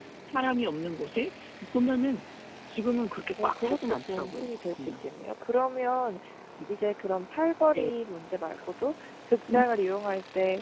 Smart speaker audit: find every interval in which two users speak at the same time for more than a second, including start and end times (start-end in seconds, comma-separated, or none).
3.4-5.0